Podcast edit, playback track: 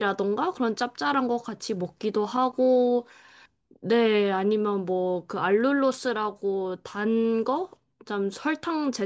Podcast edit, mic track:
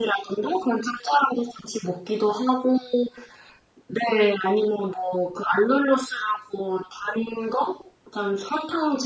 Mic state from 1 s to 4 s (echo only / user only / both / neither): echo only